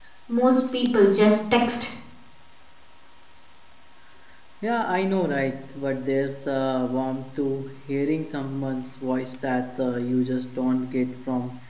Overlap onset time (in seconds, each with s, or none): none